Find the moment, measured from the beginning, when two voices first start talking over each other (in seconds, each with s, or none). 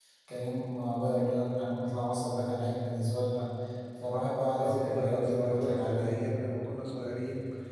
4.6 s